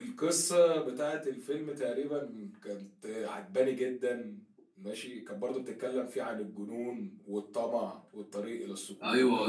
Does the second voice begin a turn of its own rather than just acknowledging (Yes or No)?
Yes